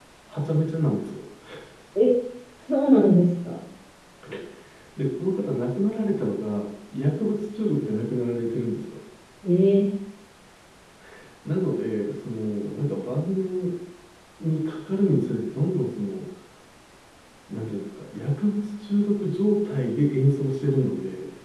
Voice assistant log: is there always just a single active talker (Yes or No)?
Yes